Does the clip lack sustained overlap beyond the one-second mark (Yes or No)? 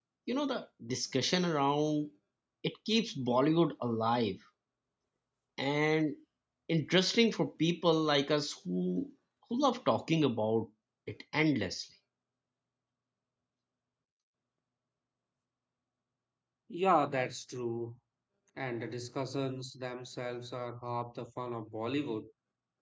Yes